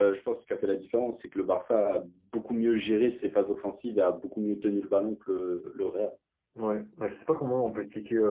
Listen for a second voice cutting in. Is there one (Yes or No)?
No